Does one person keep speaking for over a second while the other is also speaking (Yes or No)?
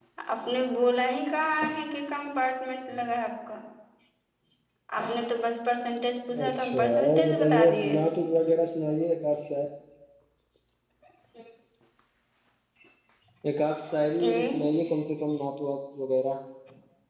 Yes